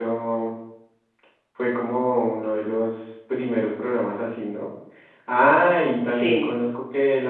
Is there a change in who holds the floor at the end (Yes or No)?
No